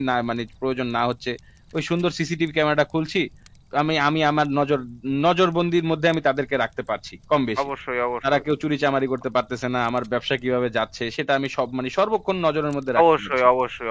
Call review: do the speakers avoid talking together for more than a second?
Yes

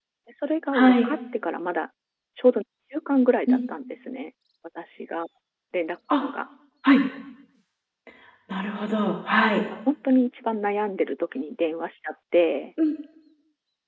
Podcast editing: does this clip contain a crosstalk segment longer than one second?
No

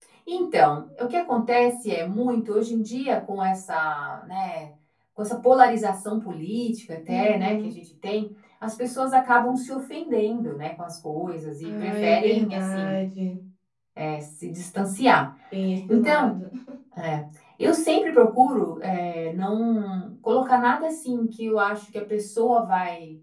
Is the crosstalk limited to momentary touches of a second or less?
No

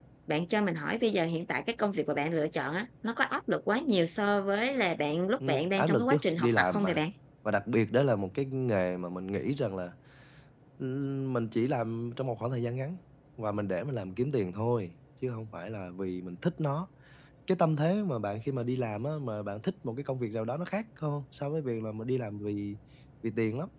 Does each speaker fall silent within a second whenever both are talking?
No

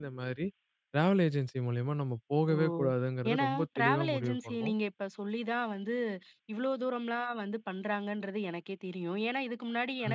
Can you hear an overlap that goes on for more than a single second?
Yes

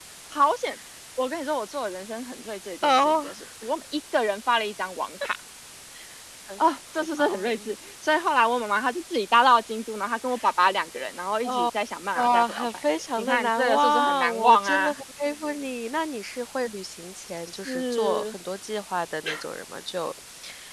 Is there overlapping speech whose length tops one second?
Yes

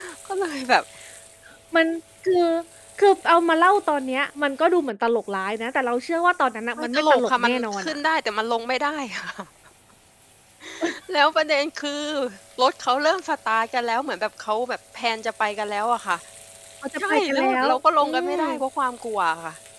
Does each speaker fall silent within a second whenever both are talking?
No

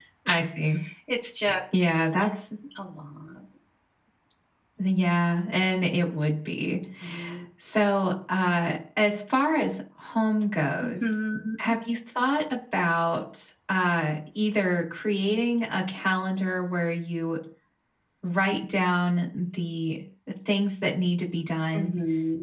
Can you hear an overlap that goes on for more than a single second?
No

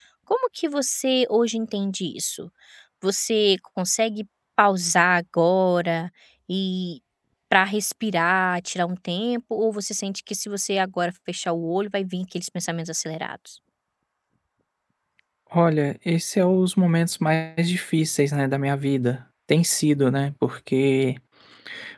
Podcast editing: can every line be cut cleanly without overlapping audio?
Yes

